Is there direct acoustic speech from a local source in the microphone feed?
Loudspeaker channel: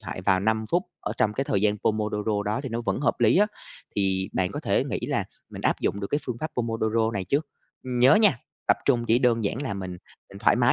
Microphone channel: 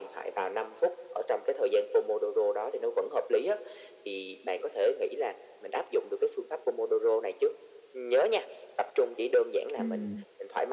Yes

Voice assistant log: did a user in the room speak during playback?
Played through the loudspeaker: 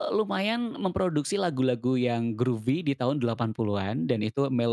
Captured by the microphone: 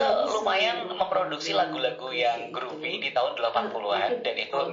Yes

